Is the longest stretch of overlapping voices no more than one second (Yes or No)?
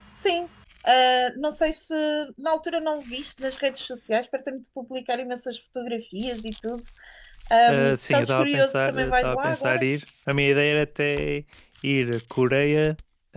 No